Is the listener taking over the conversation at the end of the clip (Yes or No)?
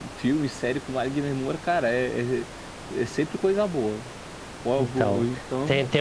Yes